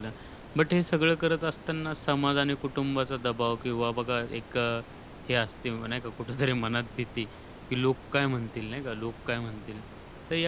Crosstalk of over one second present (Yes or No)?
No